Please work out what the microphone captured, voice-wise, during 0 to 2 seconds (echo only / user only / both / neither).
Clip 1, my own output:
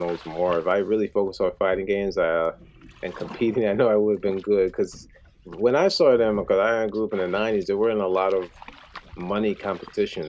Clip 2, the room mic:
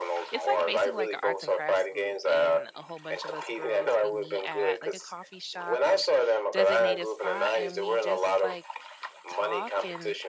both